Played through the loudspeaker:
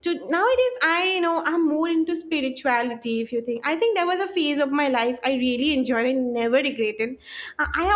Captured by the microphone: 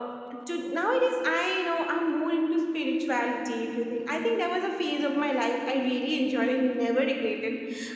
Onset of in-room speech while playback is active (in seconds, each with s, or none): none